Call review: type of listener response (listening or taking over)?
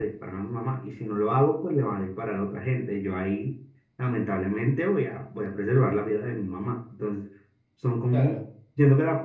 listening